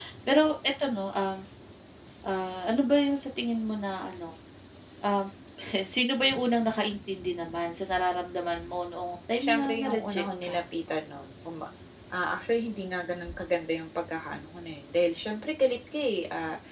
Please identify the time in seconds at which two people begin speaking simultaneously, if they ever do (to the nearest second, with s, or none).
9 s